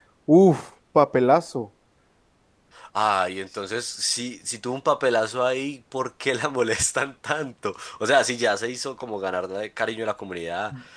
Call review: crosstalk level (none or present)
none